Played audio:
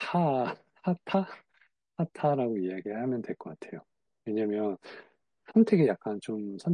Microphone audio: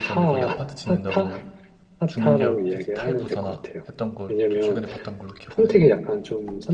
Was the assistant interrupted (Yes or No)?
Yes